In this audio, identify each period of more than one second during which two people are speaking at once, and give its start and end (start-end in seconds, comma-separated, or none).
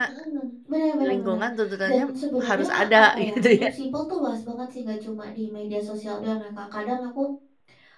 2.5-3.7